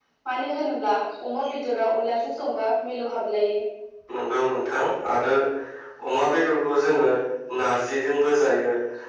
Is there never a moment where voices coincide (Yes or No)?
Yes